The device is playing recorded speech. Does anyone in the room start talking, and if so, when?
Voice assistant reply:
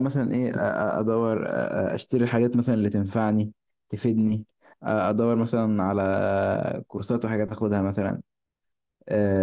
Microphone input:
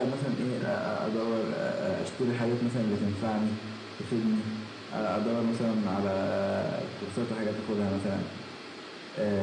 none

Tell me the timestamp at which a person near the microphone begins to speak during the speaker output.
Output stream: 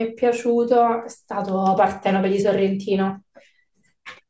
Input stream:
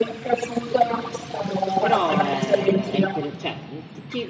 2 s

